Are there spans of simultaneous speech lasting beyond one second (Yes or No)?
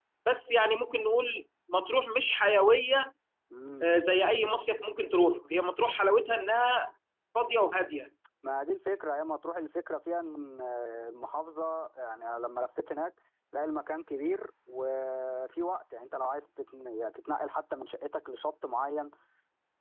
No